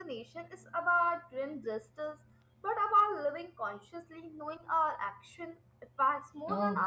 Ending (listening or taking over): taking over